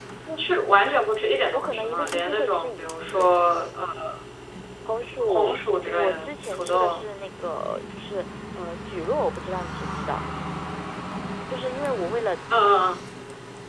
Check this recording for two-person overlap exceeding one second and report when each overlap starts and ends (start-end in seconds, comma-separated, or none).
1.5-3.3, 5.3-7.0